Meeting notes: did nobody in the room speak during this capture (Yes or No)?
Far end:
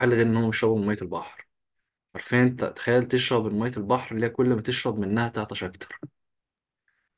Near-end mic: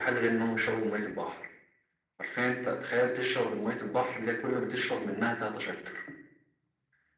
Yes